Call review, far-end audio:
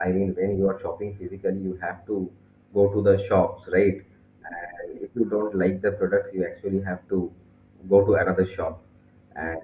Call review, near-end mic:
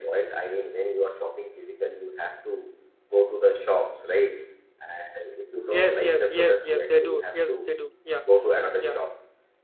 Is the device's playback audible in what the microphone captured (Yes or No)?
Yes